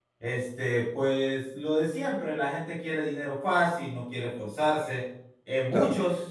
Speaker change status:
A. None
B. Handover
A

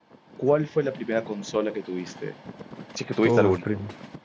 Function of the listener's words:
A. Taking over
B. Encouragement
A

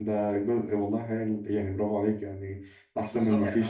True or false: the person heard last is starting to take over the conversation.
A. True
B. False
A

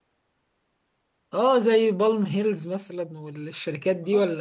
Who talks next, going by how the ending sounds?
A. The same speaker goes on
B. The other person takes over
B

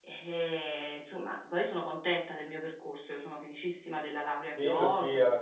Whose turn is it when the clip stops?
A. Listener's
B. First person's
A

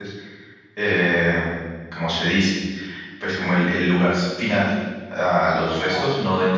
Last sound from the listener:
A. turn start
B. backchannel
B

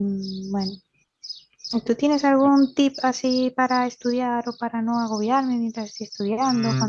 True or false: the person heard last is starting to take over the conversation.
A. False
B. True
B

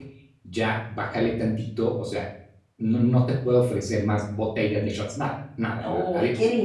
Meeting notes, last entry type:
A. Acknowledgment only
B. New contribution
B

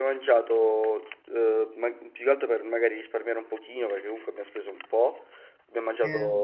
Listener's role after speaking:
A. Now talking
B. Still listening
B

